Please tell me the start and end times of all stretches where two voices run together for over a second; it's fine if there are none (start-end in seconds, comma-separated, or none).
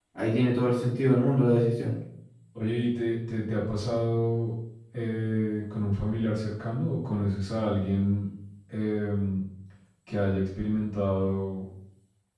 none